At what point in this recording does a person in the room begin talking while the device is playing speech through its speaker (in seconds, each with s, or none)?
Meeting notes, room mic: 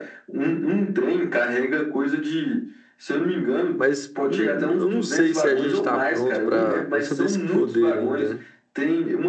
3.7 s